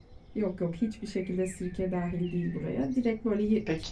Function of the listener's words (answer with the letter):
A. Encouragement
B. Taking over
A